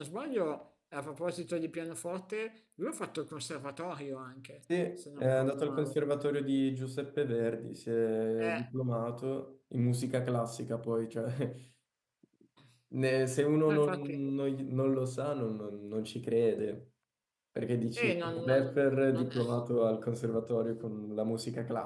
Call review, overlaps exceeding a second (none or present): present